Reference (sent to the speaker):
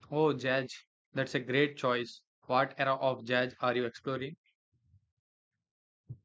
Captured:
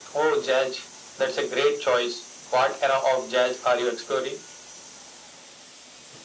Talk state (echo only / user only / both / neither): echo only